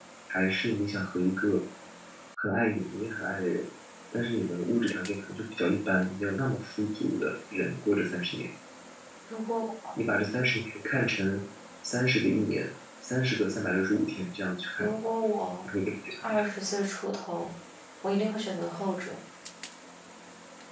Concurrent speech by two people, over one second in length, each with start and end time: none

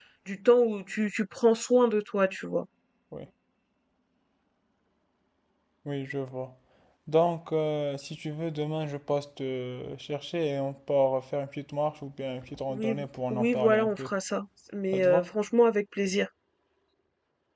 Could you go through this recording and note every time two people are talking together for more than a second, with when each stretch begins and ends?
12.7-14.1

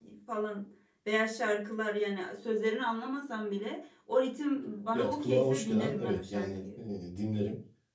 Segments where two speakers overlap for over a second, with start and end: 4.9-6.8

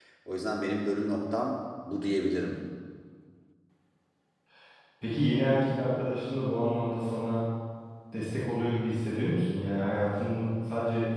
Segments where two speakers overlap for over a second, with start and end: none

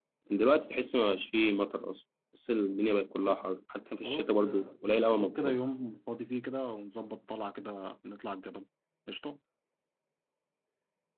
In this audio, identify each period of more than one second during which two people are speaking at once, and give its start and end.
4.0-5.6

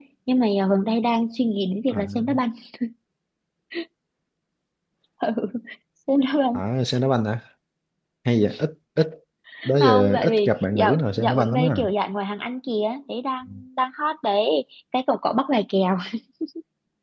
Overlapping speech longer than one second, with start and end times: 9.8-11.9

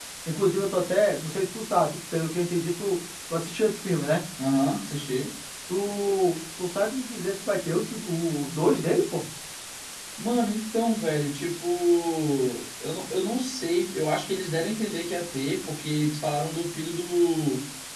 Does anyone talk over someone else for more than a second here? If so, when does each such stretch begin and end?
none

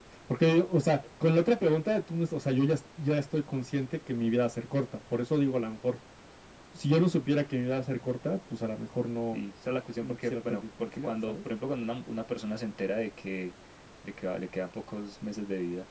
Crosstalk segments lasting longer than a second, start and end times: 10.0-11.3

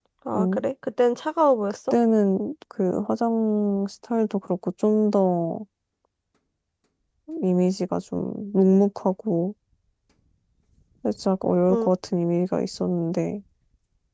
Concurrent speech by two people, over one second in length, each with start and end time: none

